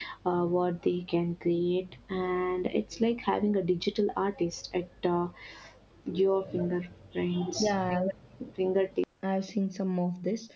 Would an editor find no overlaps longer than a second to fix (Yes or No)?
Yes